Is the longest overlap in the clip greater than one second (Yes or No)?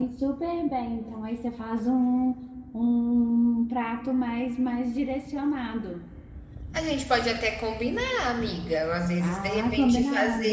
Yes